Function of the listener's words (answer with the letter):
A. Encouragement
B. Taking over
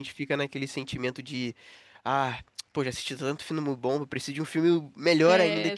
B